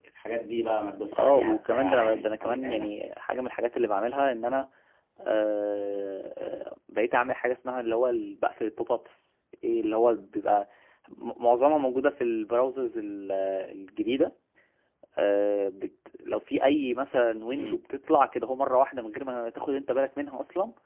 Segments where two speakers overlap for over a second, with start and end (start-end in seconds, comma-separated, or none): 1.1-2.9